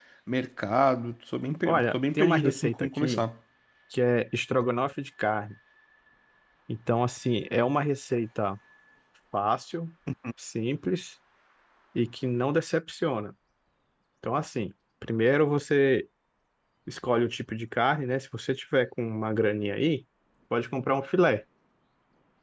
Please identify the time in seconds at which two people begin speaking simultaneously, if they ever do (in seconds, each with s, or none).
1.6 s